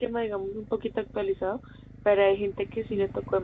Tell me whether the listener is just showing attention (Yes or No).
Yes